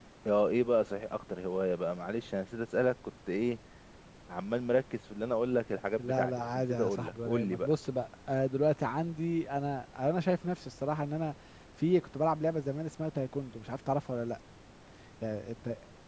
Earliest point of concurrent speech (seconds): 6.0 s

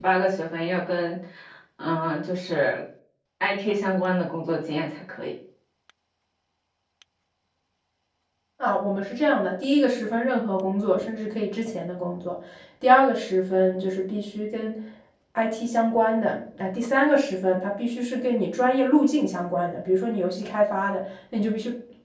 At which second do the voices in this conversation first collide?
none

